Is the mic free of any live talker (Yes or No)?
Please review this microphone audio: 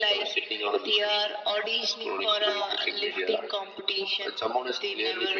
Yes